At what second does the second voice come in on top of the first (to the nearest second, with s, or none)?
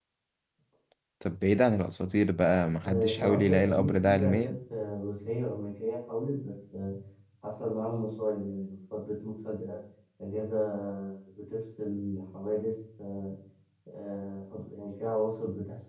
3 s